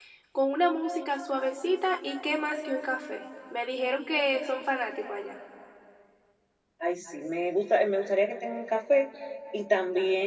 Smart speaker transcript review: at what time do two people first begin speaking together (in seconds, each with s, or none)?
none